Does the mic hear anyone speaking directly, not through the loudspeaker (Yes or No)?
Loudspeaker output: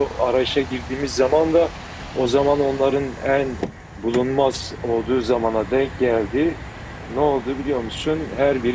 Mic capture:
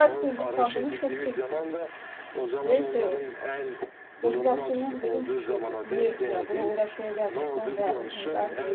Yes